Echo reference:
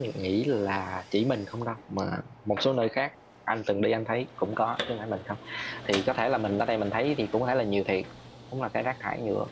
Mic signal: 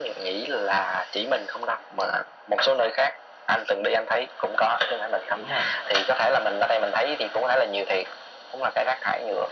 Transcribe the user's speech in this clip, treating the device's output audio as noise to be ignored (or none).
dạ đúng rồi